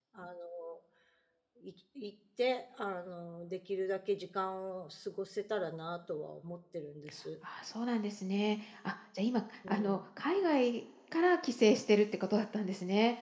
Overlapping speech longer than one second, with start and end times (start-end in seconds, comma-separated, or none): none